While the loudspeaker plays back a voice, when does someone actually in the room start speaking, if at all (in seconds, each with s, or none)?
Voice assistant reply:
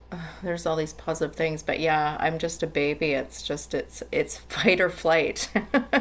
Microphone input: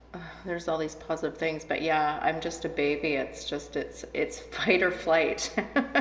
none